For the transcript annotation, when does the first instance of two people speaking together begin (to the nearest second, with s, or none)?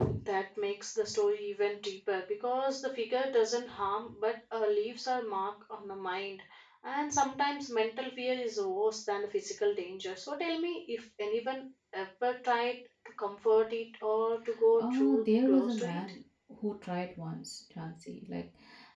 15 s